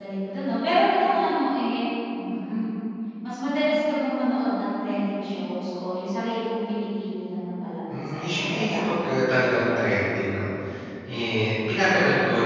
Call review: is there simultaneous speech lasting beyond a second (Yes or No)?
Yes